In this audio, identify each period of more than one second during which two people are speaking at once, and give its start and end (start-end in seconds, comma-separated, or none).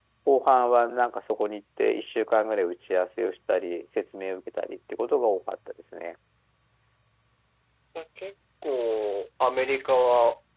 none